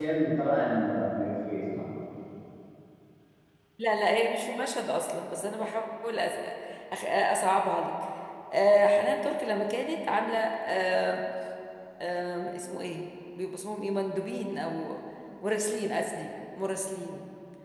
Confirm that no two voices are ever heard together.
Yes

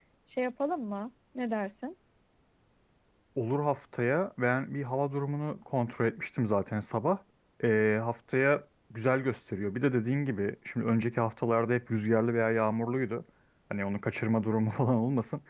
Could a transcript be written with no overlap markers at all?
Yes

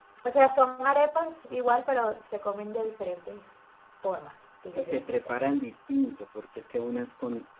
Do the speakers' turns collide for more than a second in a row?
No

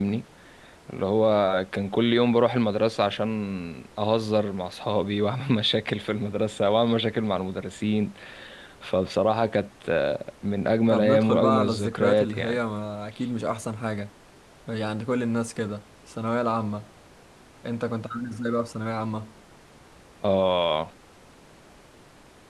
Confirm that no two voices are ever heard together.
No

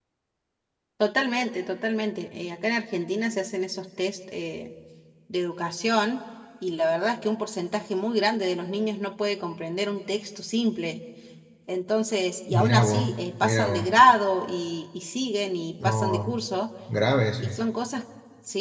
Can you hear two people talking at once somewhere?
Yes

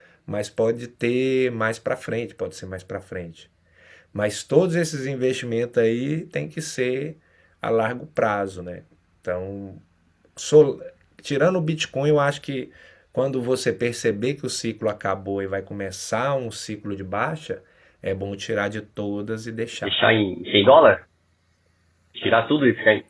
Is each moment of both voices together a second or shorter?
Yes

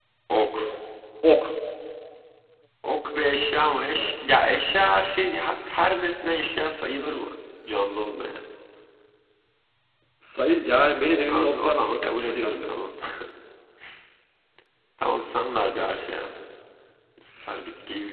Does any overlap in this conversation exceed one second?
Yes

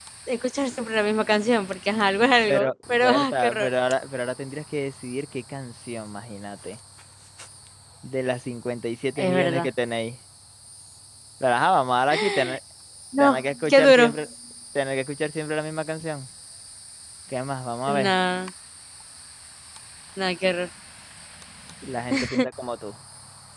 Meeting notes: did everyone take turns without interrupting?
No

